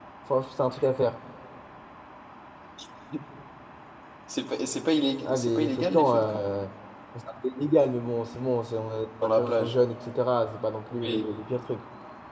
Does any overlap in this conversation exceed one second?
Yes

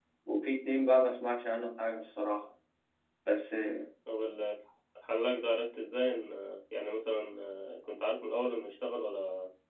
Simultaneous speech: No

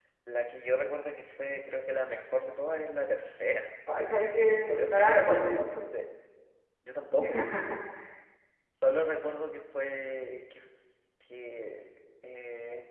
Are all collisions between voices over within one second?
No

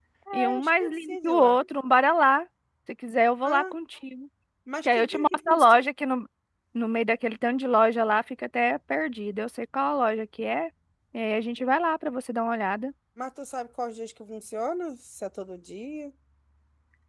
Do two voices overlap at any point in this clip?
Yes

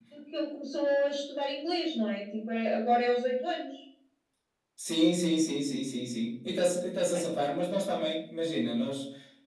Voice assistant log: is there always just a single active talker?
Yes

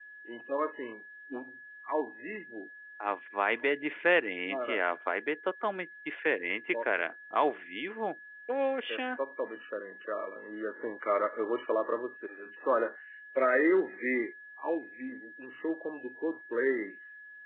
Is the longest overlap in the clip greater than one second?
No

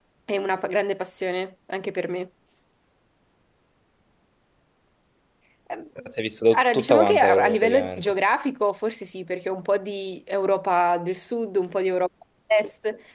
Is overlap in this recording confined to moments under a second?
No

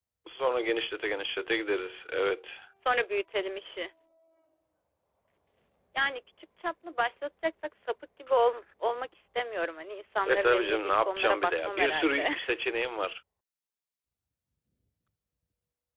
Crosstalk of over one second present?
Yes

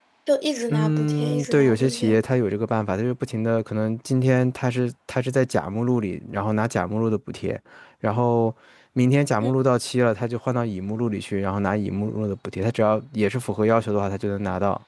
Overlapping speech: Yes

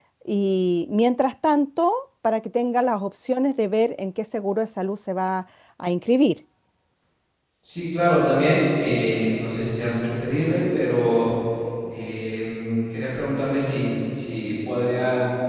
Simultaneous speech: No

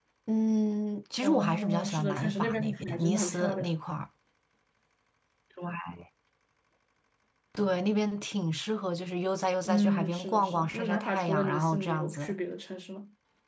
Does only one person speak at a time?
No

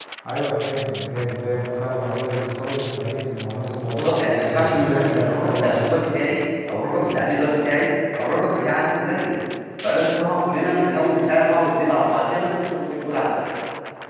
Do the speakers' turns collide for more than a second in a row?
Yes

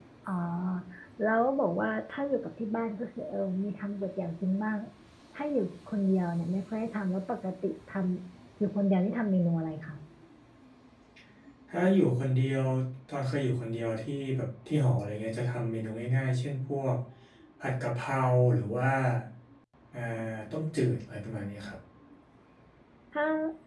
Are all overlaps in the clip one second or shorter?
Yes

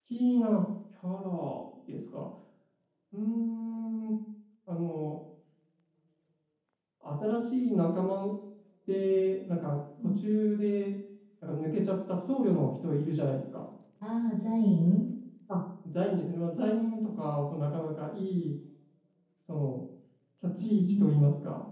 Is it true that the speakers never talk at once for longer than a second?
Yes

